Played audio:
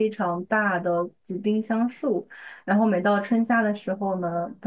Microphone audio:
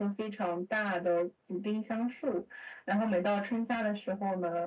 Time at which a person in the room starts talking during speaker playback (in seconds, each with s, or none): none